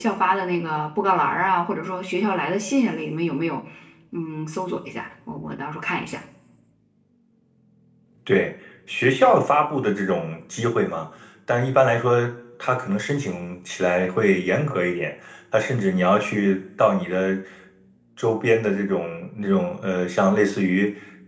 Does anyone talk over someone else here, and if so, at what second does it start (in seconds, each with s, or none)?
none